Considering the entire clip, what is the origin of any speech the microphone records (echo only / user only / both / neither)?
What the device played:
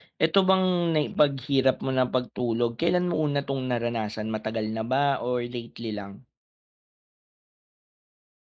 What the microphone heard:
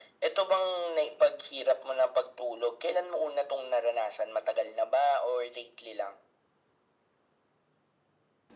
echo only